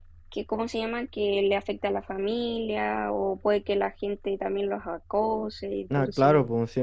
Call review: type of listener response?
taking over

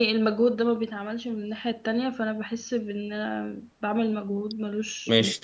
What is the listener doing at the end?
taking over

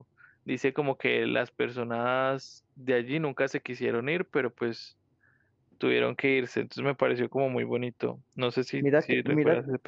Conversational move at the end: taking over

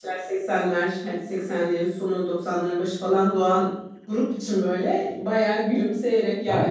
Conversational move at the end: listening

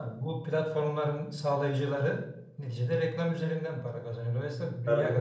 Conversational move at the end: listening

